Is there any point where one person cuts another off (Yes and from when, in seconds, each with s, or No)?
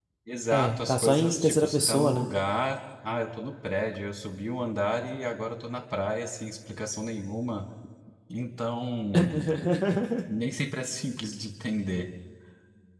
Yes, from 0.5 s